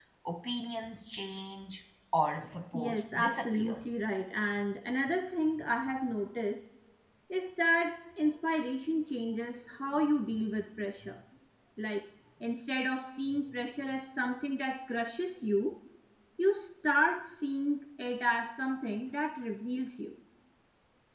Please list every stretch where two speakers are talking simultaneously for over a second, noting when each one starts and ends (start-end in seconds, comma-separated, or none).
2.7-4.0